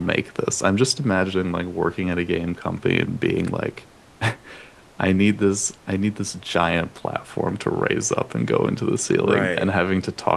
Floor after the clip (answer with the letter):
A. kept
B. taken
A